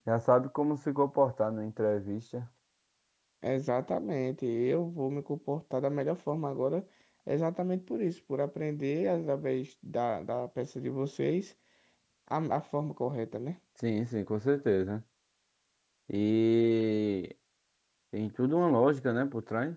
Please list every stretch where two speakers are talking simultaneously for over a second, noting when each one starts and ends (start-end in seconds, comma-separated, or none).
none